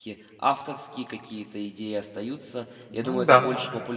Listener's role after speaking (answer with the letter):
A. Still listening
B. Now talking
A